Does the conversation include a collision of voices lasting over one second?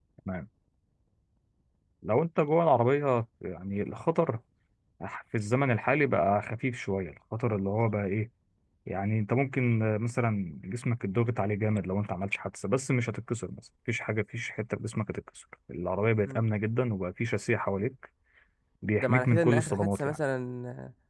Yes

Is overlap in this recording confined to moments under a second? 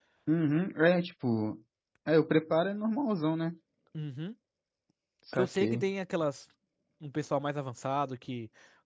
Yes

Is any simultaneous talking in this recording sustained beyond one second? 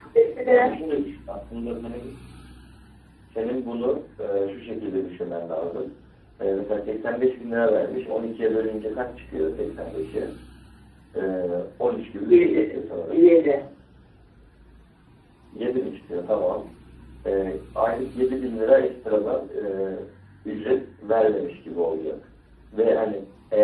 No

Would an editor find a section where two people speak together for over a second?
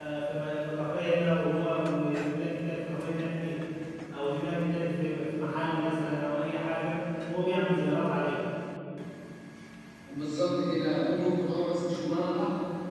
No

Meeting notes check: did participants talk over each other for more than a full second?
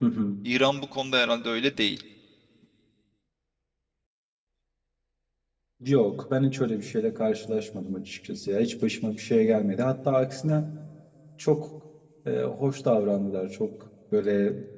No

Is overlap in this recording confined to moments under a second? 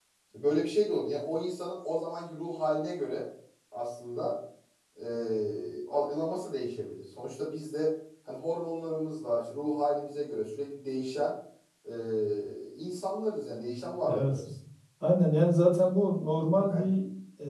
Yes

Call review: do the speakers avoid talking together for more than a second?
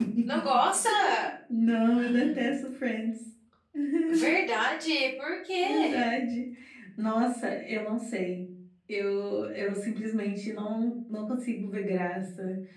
Yes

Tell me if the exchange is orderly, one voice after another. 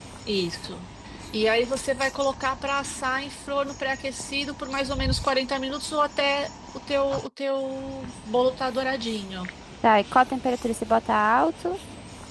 Yes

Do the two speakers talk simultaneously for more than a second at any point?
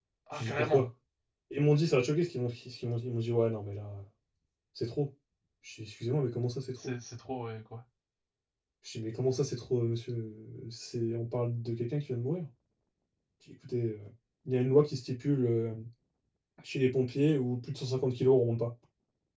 No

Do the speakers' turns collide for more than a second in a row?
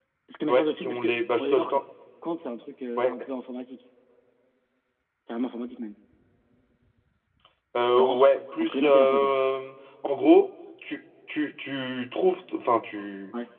Yes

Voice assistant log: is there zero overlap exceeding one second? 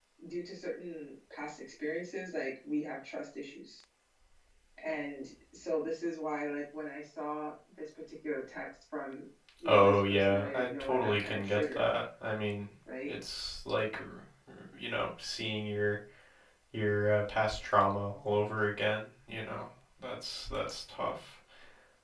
No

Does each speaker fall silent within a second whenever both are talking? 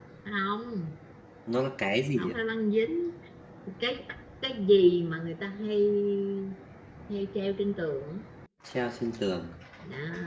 Yes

